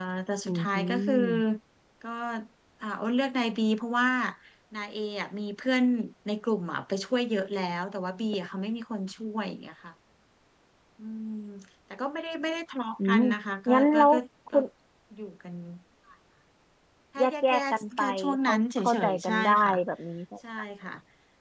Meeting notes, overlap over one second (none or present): present